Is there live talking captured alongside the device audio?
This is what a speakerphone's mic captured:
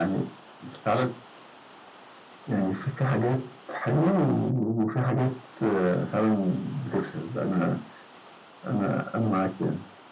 No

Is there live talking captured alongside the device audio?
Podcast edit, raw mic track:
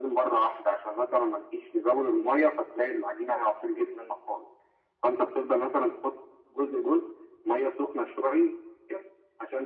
No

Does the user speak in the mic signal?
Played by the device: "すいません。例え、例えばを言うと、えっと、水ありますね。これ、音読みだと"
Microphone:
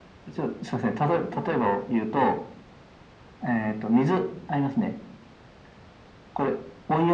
Yes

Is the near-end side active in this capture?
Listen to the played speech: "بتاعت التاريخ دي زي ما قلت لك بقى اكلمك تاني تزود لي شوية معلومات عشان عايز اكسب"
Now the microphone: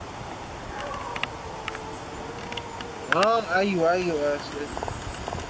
Yes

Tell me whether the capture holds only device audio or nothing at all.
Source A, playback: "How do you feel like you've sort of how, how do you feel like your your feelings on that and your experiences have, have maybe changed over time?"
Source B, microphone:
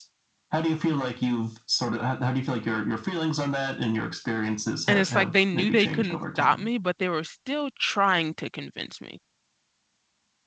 No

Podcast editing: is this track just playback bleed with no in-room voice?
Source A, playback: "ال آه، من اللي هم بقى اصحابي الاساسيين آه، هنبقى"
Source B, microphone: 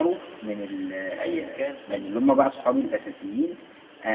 No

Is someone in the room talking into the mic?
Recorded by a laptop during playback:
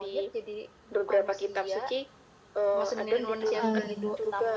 Yes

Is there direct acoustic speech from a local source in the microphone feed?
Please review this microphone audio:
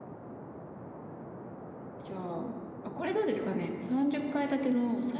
Yes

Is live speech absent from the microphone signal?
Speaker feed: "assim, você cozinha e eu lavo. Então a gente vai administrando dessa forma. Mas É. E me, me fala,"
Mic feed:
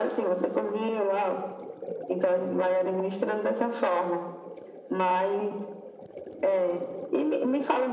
Yes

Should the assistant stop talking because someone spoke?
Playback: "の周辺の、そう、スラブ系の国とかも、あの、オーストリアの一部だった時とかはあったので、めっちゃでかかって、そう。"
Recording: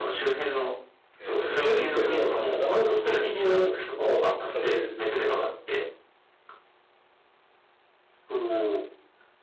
Yes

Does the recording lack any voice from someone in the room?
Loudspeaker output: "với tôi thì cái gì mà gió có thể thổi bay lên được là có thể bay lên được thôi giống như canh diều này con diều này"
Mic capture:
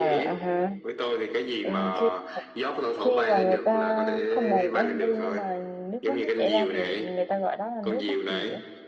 No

